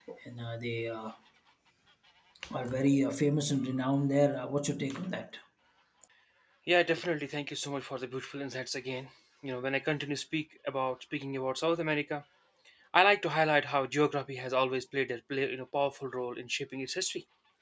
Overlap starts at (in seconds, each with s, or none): none